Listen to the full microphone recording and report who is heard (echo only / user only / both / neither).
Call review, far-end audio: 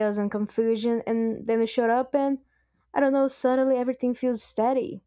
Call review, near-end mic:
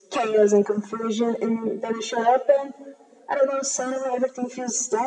echo only